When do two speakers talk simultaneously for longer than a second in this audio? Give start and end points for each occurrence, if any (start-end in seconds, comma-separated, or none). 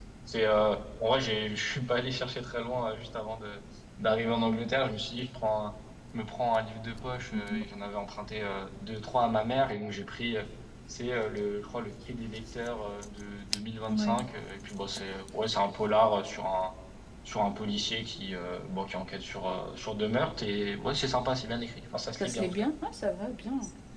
none